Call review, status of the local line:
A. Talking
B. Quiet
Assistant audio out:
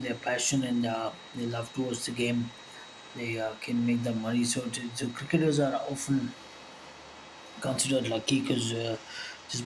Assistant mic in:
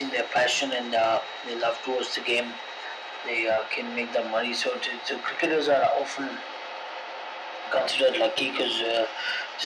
B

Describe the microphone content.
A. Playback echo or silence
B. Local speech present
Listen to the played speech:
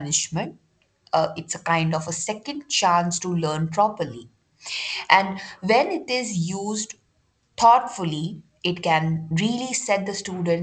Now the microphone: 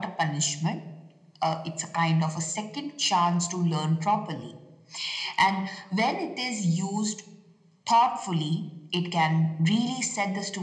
A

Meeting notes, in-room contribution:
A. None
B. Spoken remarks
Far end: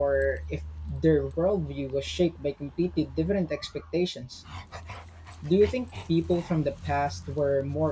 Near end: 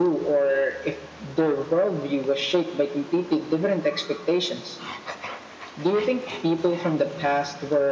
A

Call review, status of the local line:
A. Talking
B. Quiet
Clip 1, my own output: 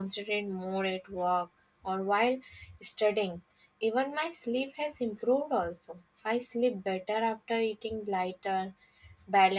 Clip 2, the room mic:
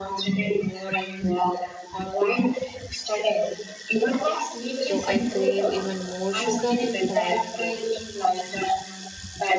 A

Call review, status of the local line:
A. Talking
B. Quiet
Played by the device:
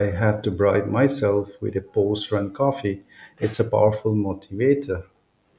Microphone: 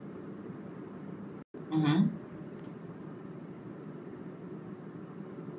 A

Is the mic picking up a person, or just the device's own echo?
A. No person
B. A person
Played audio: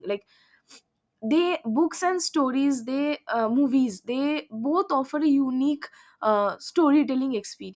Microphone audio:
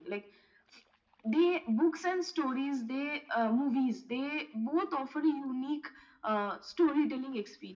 A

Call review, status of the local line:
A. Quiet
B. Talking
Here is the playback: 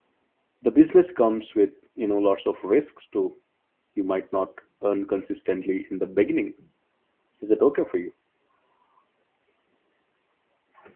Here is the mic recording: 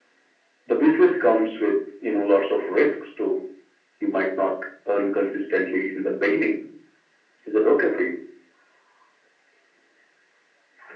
A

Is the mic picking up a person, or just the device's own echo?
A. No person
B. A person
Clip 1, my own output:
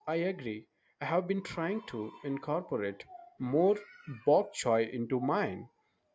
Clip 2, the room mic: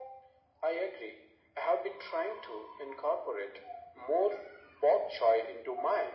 A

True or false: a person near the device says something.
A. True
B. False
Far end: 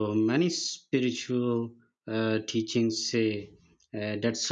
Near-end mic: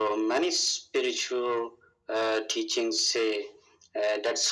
B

